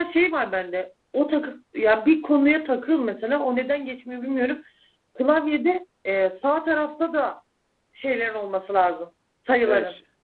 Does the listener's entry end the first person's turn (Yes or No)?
Yes